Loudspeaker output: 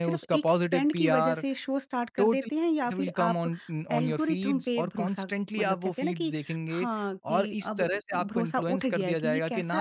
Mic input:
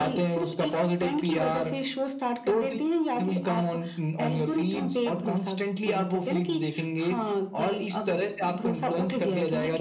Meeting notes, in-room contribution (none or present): none